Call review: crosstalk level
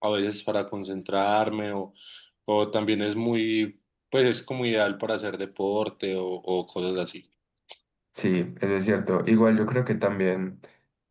none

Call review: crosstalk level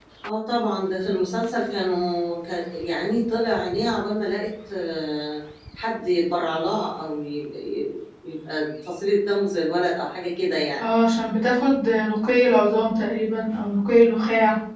none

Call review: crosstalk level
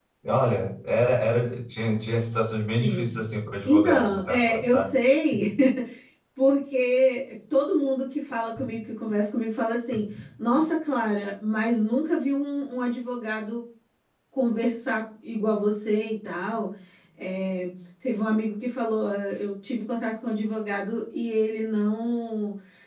present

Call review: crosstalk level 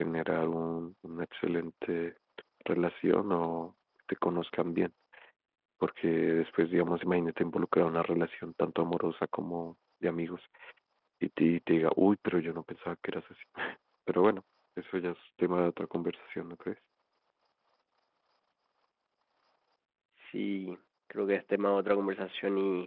none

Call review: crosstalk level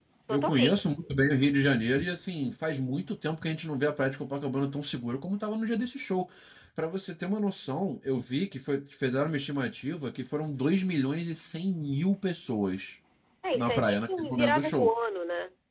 present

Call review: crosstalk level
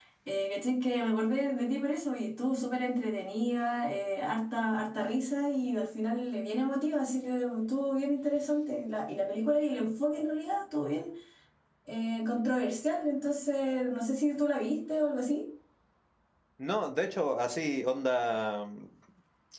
none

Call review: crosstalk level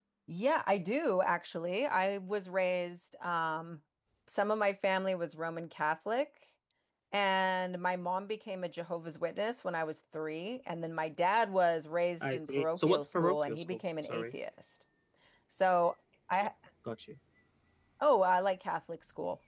present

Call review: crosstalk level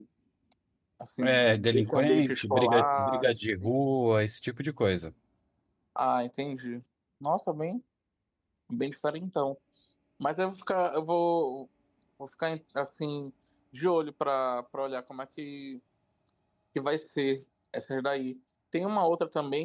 present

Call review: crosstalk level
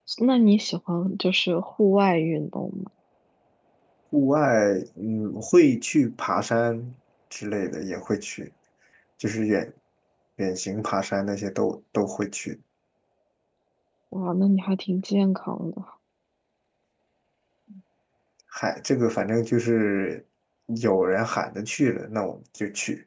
none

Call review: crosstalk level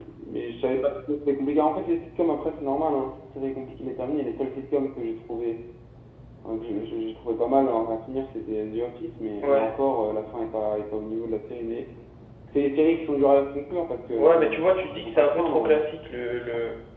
present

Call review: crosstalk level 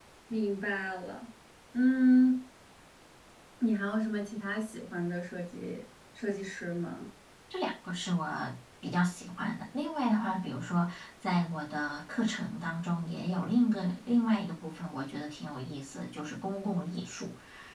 none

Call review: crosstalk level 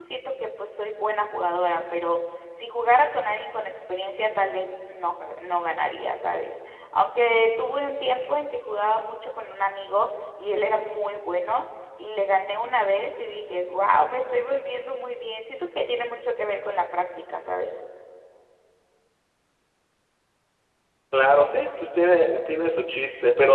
none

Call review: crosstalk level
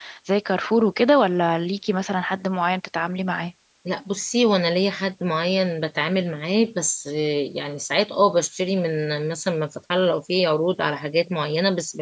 none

